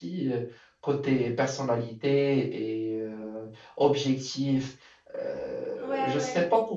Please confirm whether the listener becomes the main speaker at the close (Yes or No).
Yes